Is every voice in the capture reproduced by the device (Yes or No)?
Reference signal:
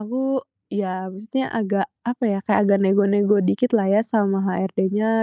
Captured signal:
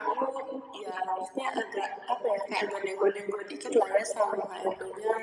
Yes